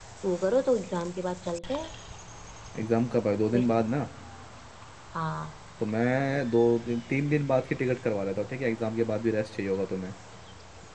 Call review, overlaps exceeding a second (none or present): none